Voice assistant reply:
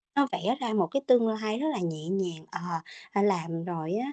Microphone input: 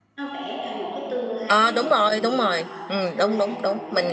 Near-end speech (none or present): present